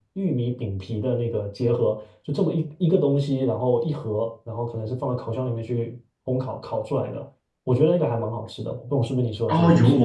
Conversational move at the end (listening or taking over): taking over